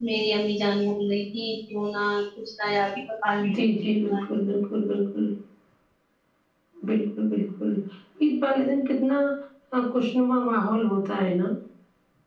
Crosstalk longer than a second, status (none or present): none